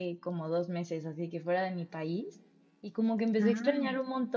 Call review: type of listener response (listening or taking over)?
listening